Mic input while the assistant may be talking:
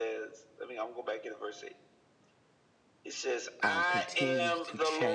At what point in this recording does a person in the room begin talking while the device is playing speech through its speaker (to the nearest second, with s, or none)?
4 s